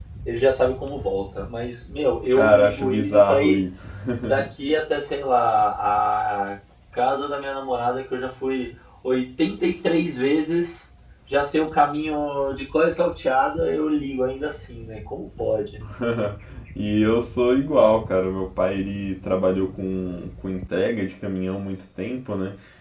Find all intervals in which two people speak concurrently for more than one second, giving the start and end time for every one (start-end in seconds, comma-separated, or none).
2.3-3.6